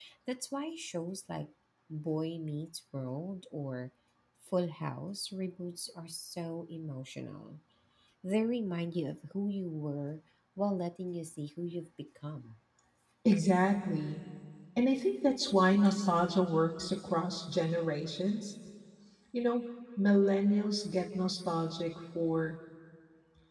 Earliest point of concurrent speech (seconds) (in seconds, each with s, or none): none